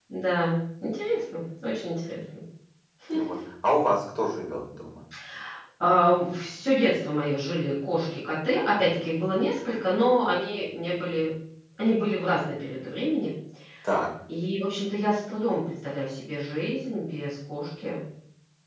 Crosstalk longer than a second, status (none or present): none